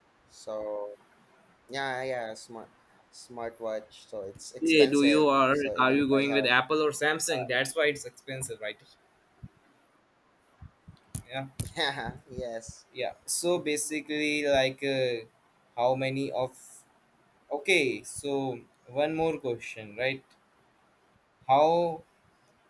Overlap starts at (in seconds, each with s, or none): 4.6 s